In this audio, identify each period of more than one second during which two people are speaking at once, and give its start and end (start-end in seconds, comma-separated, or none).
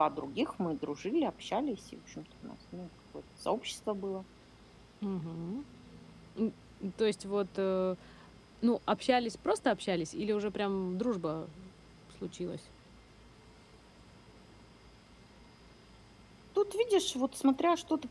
none